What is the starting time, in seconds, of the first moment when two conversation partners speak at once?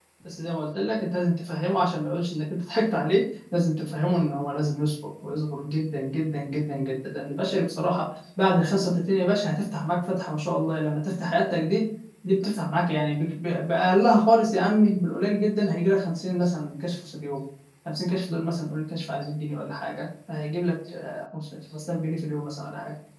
none

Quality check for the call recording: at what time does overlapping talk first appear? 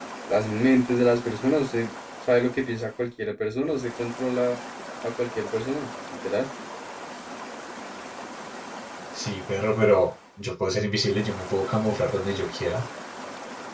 none

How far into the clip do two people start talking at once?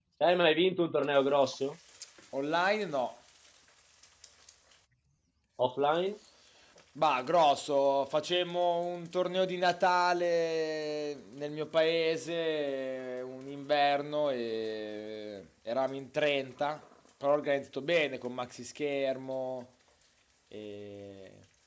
none

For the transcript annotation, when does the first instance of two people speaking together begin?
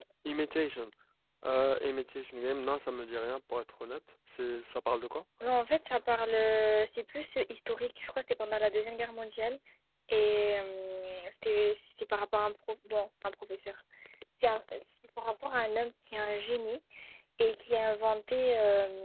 none

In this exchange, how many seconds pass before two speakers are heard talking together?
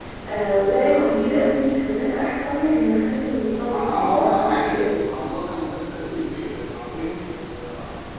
3.6 s

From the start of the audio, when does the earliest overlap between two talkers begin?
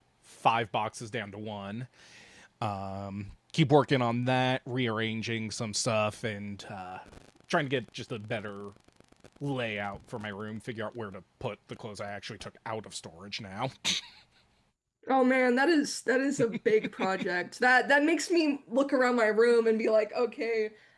none

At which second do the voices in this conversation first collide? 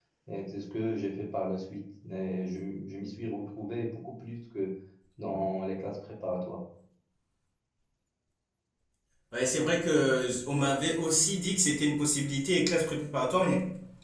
none

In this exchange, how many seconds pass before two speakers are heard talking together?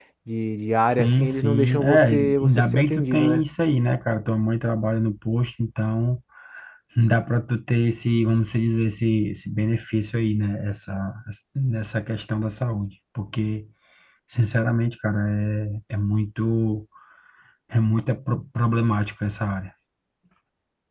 0.9 s

